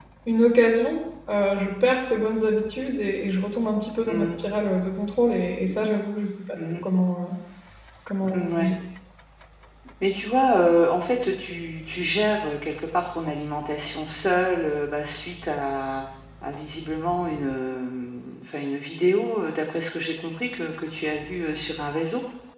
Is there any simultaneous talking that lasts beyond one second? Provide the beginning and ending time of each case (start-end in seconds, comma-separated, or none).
none